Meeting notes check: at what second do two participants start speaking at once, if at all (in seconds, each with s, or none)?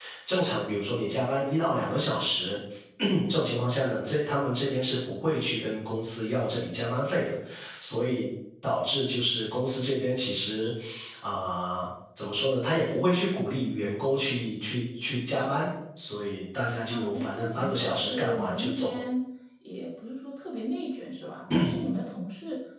16.8 s